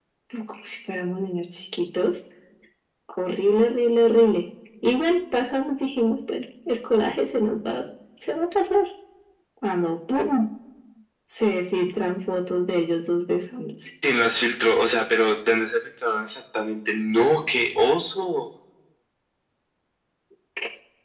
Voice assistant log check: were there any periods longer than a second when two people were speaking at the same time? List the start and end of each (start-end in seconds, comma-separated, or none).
none